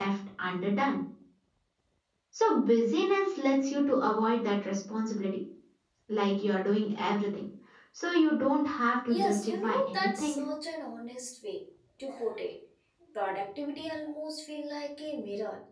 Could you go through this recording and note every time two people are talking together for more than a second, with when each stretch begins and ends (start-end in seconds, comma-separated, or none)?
9.1-10.4